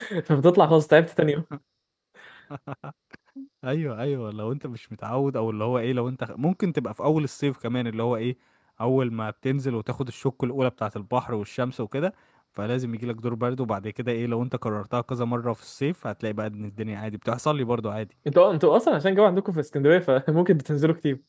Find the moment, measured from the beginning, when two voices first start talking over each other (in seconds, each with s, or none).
none